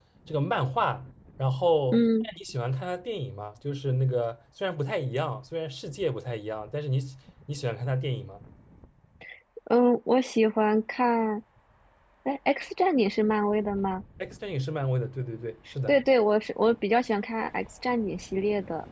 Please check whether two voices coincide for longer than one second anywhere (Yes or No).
No